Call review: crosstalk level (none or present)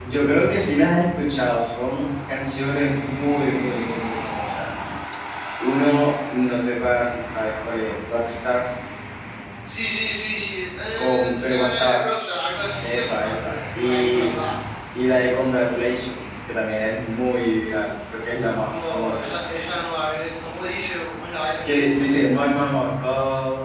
present